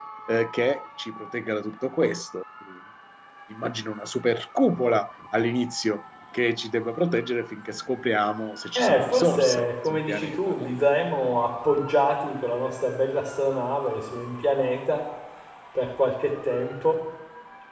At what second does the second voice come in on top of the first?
8.8 s

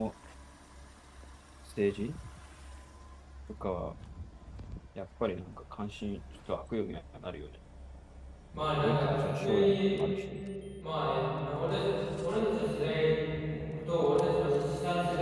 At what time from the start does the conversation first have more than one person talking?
8.5 s

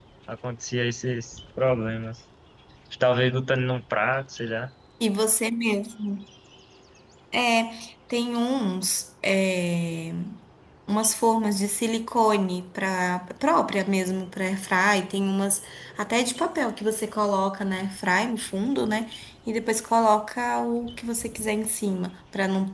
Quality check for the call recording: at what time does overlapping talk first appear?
none

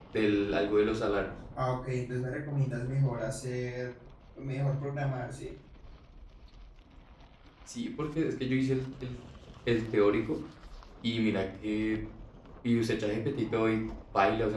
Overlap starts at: none

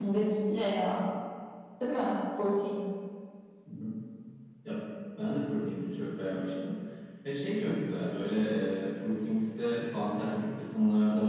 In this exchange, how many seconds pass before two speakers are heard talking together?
none

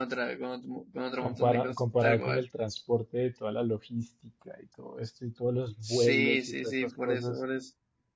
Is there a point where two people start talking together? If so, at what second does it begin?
1.2 s

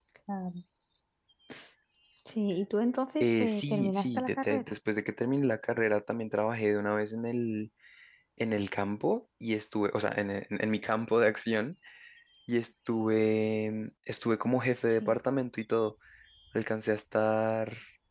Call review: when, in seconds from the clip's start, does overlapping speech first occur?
3.2 s

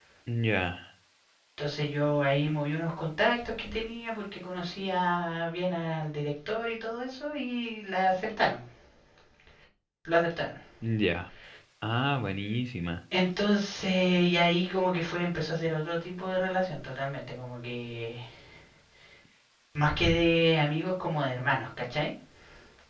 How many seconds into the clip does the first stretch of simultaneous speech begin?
none

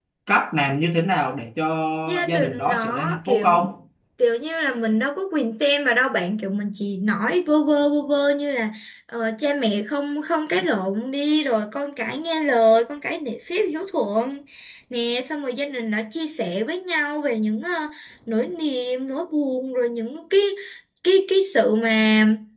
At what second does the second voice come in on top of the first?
2.3 s

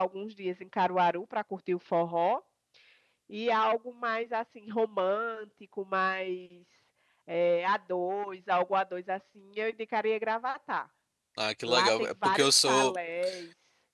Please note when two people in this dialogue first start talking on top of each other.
11.7 s

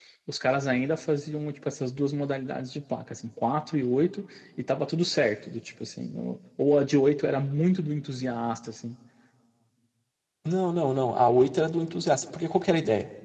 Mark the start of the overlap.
none

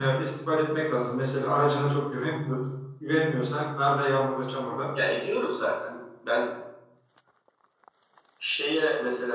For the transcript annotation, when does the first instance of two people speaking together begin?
none

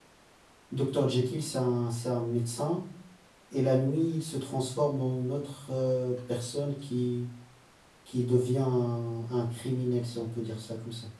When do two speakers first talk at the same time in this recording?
none

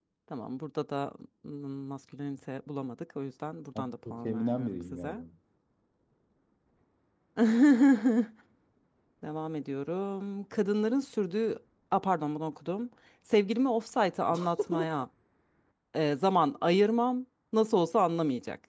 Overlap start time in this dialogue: 3.8 s

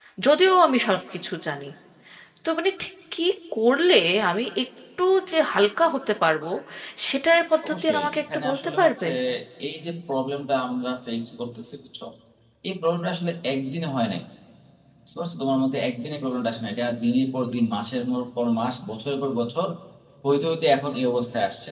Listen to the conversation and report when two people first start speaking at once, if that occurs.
7.7 s

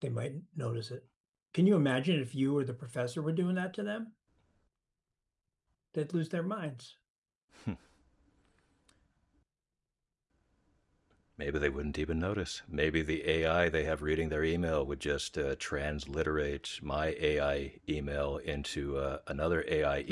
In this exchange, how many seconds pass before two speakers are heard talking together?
none

